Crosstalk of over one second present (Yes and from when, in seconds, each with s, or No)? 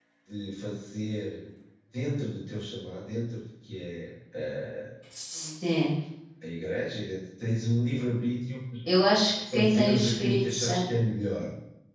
Yes, from 9.5 s